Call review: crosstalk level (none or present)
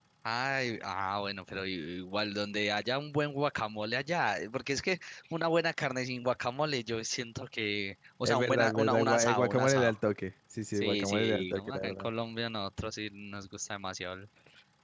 present